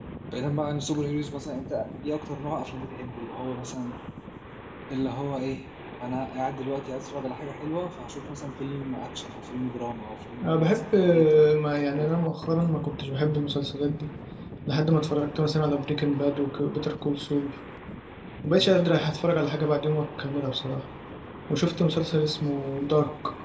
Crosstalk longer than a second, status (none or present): present